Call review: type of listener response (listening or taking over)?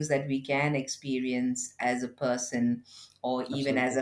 listening